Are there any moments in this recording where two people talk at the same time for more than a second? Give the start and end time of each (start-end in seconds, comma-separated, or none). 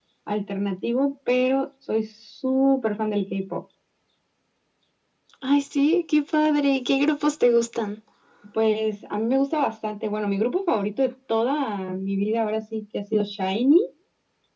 none